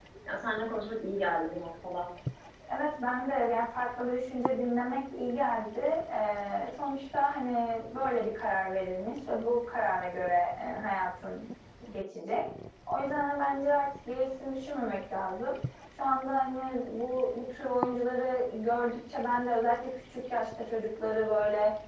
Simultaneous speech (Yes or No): No